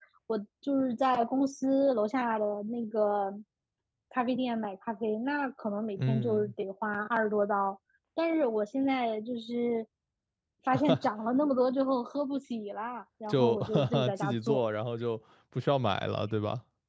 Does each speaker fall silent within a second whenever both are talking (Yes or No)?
No